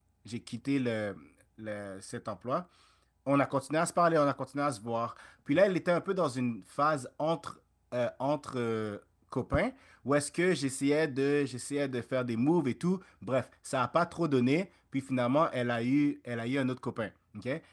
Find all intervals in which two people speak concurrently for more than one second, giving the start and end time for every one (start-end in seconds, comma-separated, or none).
none